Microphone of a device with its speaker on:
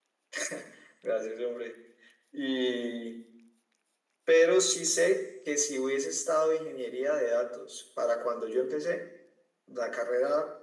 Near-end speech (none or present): none